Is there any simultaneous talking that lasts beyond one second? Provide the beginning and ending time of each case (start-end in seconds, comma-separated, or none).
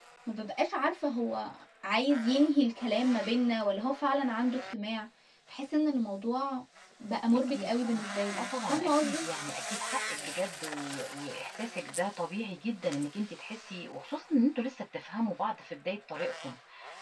7.3-9.2